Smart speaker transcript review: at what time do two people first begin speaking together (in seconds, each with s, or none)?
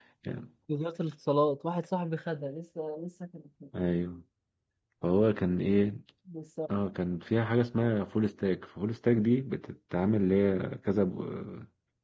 none